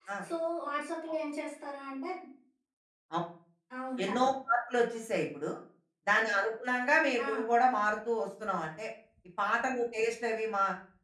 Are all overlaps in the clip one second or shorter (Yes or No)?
Yes